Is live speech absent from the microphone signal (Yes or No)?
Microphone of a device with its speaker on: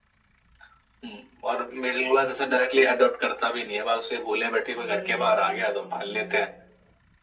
No